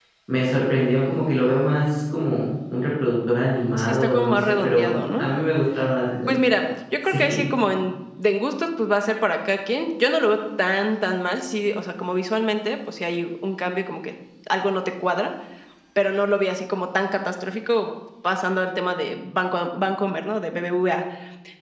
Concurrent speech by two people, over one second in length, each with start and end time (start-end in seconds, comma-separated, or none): 3.8-5.2